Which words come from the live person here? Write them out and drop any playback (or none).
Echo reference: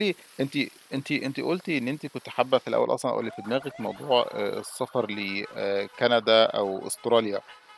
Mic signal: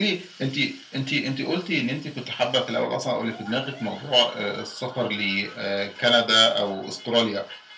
none